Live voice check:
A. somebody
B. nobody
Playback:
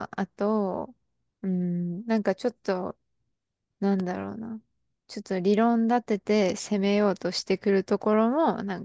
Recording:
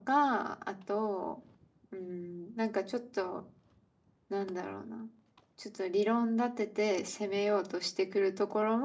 B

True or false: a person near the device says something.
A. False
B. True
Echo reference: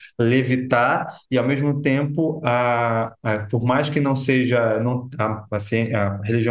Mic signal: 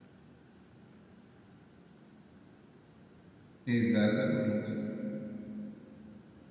B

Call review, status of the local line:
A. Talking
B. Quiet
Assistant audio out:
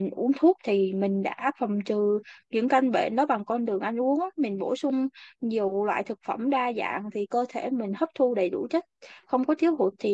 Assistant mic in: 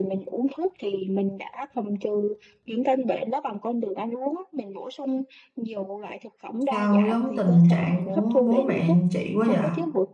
A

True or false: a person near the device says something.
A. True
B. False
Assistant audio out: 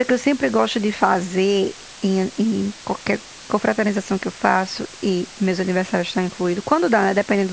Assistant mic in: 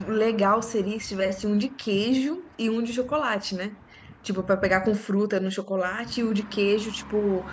A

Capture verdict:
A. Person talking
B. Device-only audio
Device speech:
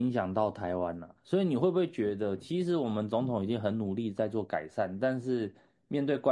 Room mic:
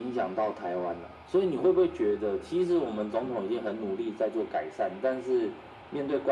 B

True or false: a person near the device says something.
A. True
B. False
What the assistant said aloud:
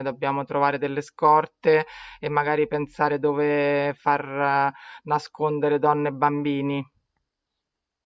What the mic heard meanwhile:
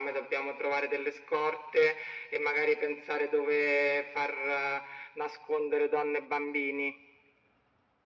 B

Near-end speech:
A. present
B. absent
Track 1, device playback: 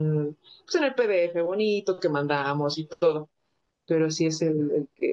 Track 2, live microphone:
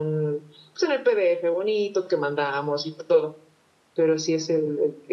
B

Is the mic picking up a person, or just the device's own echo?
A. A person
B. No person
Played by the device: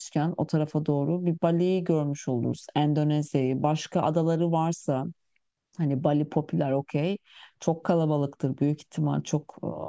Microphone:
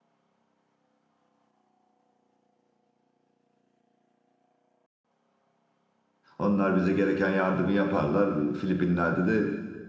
A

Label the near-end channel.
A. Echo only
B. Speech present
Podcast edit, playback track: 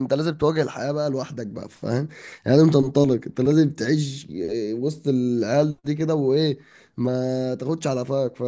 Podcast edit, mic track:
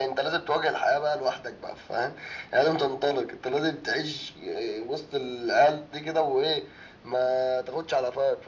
A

